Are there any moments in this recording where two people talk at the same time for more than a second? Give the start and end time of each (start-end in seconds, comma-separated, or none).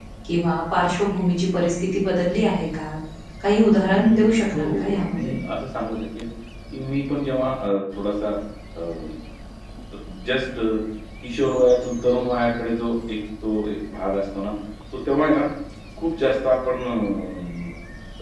3.9-5.3